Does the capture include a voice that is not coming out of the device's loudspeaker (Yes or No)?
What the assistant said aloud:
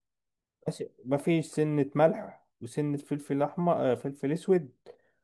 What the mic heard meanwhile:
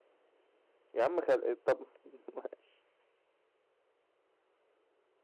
Yes